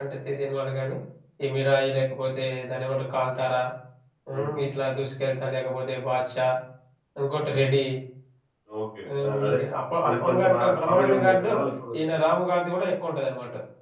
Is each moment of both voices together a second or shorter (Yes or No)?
No